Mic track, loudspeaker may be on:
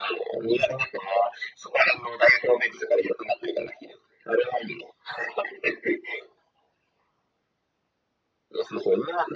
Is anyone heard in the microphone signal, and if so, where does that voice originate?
echo only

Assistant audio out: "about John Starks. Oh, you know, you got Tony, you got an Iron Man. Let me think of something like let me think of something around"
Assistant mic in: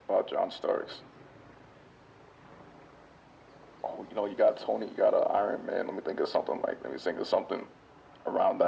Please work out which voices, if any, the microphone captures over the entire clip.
echo only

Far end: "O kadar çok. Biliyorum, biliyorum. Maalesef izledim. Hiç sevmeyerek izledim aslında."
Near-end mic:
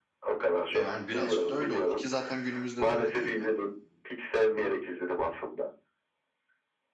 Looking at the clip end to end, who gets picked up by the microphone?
both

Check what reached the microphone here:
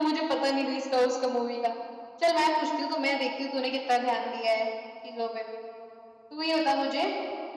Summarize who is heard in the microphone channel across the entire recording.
echo only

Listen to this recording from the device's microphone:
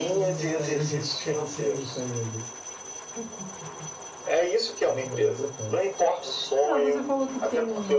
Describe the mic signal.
both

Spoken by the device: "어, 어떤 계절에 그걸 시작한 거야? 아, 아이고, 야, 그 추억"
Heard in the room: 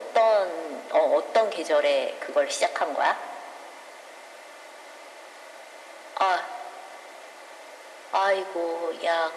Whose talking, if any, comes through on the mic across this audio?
echo only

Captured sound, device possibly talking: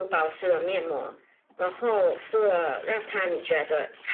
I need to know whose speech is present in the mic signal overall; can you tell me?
echo only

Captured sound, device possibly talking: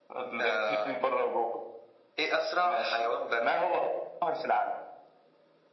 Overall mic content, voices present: echo only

